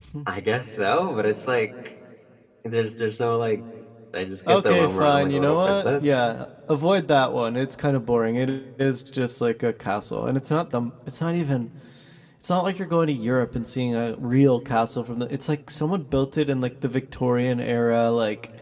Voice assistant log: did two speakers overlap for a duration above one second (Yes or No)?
Yes